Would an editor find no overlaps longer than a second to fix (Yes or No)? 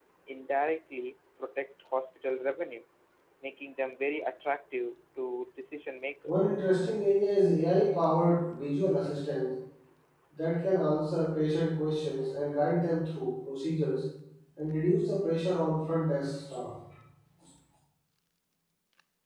Yes